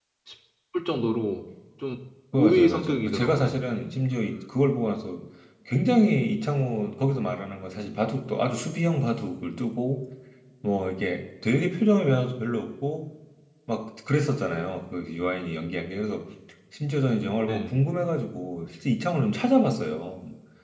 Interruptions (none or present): present